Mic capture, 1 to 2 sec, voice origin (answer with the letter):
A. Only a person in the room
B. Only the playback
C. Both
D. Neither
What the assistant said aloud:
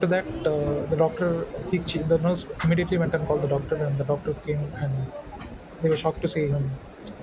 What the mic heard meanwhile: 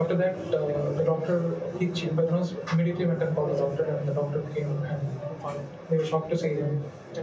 C